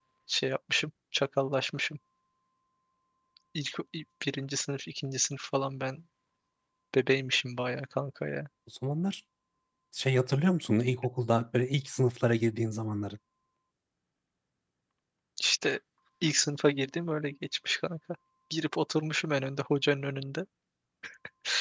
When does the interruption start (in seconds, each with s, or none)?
none